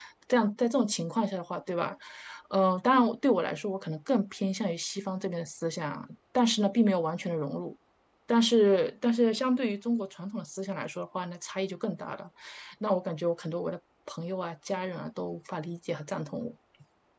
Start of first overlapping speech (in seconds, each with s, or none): none